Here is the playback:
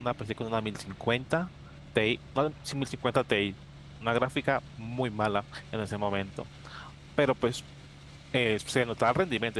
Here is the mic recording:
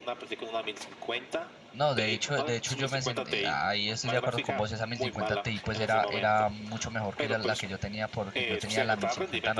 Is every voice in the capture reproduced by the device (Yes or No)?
No